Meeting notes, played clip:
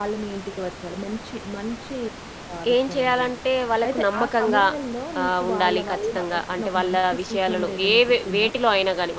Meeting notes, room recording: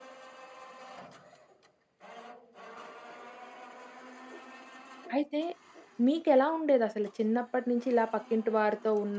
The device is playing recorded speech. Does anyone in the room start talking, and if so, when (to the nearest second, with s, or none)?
5 s